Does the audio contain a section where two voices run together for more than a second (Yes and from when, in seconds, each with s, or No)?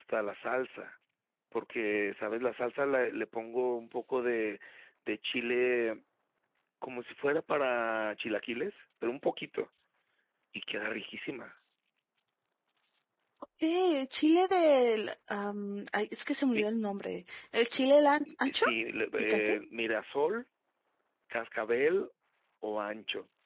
No